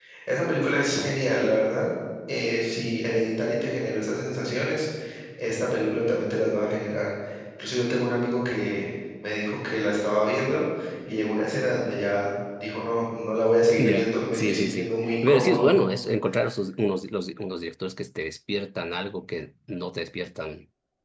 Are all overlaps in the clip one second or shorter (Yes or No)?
No